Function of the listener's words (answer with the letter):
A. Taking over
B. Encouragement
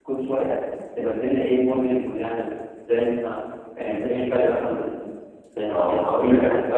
A